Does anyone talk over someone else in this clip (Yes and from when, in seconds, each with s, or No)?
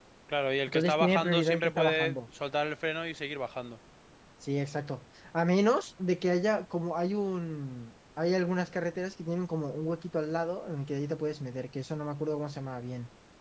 Yes, from 0.7 s